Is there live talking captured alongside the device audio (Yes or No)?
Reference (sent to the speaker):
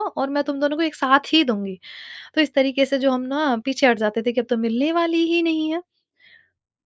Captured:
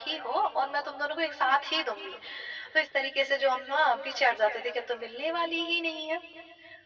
No